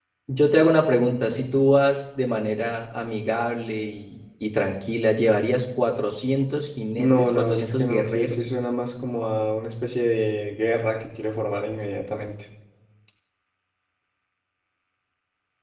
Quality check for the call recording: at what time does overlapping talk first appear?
7.0 s

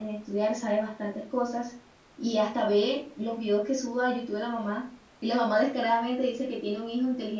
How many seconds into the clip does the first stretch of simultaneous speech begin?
none

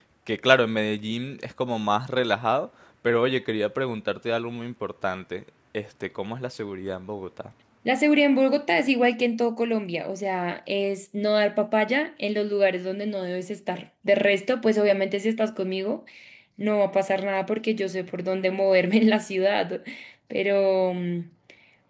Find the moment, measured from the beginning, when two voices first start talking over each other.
none

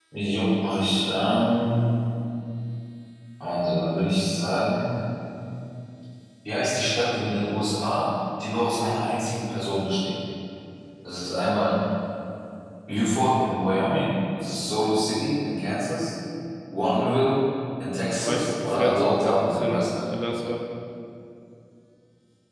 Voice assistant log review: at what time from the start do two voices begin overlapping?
18.1 s

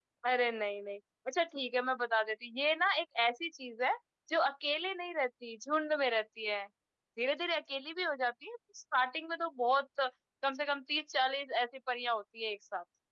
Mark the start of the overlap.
none

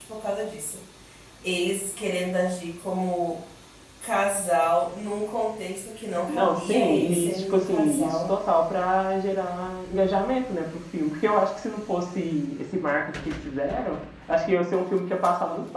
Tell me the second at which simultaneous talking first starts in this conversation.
6.3 s

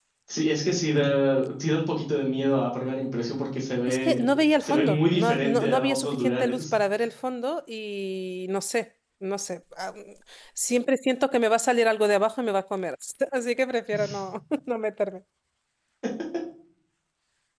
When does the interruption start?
3.9 s

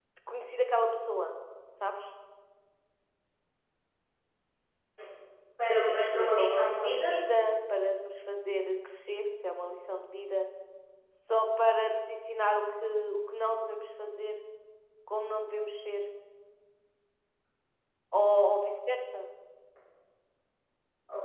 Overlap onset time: 5.9 s

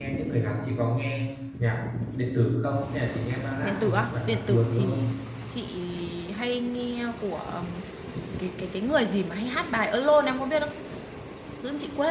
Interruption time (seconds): 3.6 s

